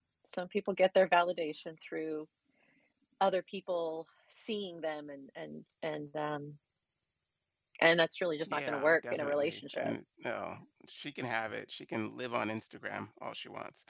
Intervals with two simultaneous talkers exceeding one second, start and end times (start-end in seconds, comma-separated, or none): 8.5-9.9